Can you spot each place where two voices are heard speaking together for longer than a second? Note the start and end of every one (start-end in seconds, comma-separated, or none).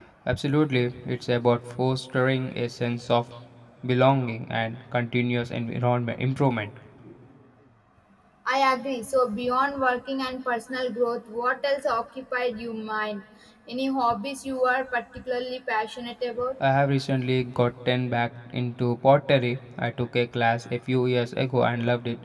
none